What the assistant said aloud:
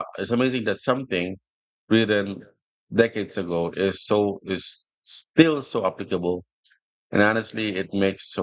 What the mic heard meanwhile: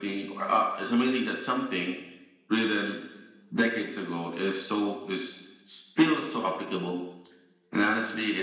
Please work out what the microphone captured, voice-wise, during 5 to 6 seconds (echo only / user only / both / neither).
echo only